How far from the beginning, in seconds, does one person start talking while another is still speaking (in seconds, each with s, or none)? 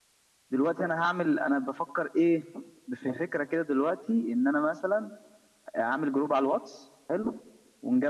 none